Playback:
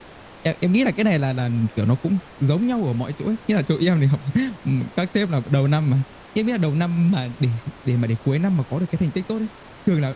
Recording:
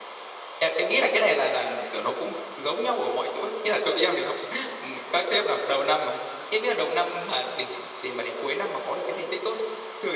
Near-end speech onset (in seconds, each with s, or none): none